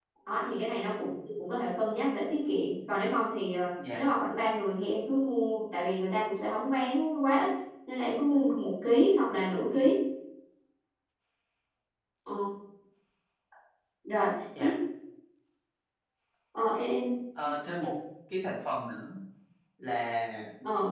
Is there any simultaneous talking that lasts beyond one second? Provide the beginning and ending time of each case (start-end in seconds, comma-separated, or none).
none